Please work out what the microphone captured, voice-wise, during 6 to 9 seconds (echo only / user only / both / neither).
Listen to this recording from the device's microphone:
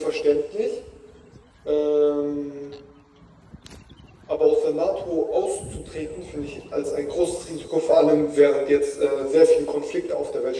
echo only